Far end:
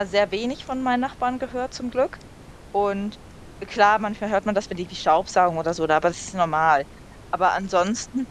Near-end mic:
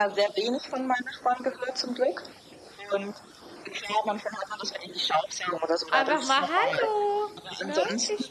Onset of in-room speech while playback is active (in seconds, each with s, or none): 5.9 s